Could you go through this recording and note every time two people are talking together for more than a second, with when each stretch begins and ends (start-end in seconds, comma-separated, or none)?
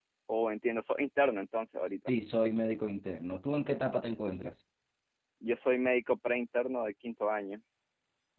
none